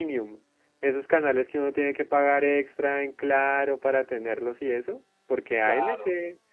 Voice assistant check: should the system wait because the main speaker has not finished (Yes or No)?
Yes